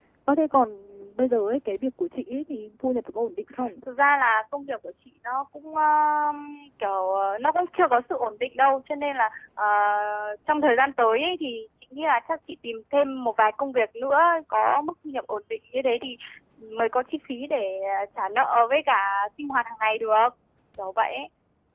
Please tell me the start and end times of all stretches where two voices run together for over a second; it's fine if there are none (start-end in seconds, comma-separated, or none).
none